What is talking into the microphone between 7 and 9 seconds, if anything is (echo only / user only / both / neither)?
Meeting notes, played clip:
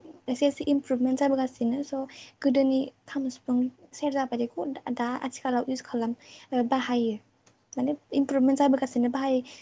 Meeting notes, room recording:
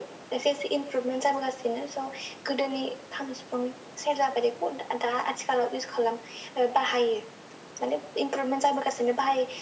echo only